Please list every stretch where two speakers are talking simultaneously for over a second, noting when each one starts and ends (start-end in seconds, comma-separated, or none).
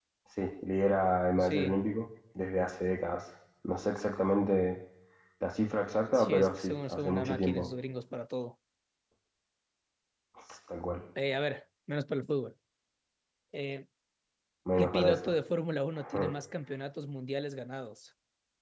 6.1-7.7